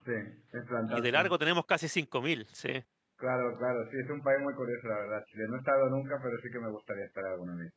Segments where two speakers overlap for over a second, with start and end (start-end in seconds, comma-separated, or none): none